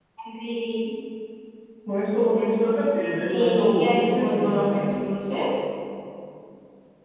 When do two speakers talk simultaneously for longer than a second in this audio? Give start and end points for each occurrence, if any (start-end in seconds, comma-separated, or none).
3.2-4.7